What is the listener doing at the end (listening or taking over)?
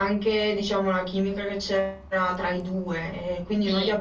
listening